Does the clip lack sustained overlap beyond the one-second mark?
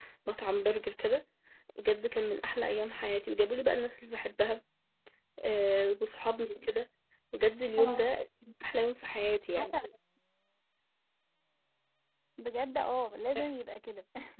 Yes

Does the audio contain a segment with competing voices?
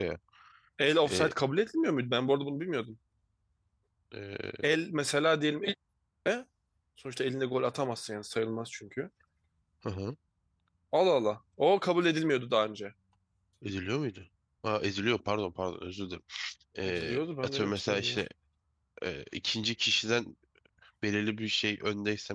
Yes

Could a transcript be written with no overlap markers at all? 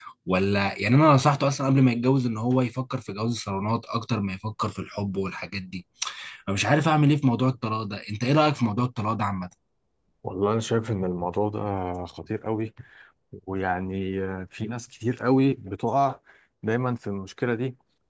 Yes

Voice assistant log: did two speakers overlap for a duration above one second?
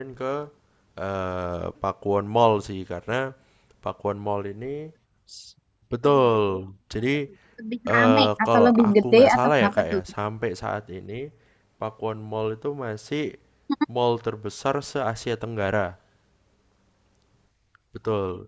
Yes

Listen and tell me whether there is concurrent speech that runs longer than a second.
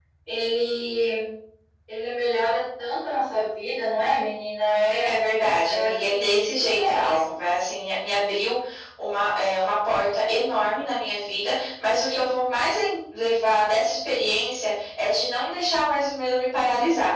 Yes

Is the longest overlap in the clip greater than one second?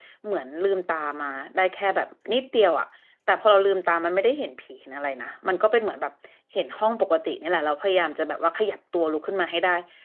No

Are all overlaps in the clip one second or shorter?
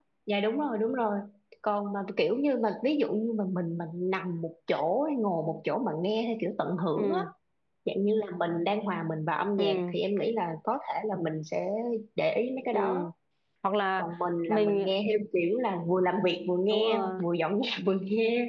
Yes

